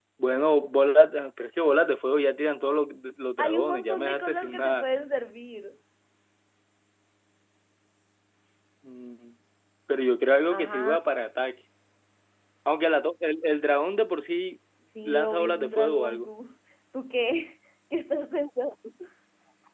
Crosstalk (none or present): present